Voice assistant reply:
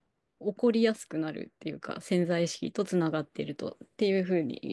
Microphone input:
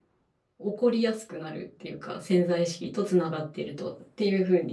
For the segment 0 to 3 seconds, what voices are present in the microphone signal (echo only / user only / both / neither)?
echo only